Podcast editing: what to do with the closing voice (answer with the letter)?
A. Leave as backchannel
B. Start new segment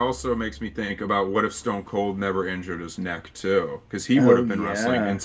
A